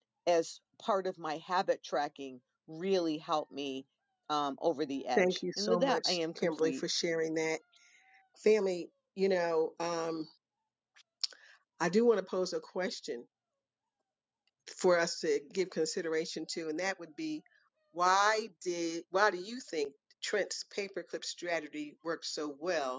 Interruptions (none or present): present